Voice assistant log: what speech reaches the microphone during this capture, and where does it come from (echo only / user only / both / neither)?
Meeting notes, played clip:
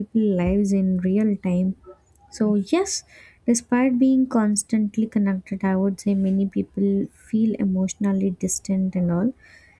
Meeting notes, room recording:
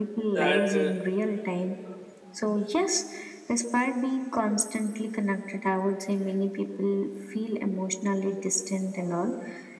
both